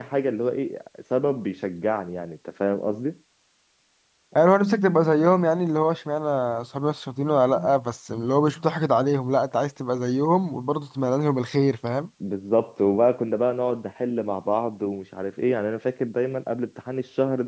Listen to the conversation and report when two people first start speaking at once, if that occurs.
none

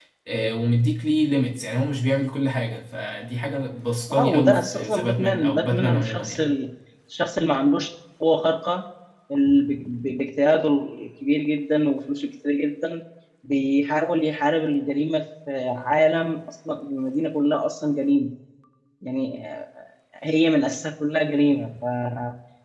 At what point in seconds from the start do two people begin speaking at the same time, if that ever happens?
4.1 s

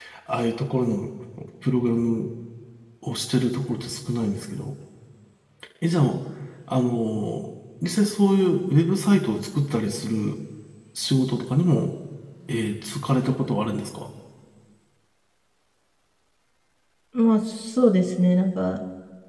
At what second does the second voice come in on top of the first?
none

